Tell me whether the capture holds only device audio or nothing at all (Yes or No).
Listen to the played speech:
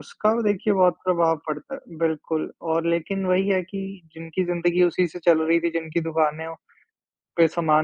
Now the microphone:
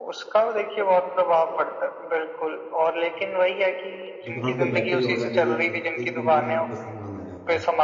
No